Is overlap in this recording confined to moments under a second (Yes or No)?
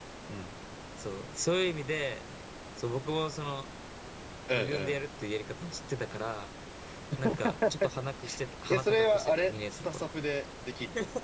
No